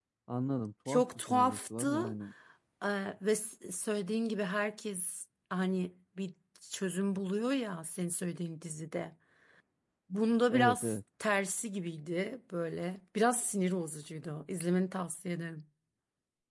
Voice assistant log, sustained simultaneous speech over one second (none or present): present